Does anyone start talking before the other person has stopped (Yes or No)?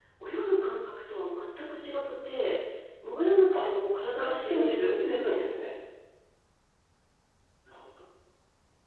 Yes